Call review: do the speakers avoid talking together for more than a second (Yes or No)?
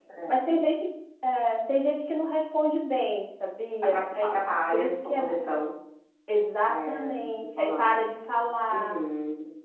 No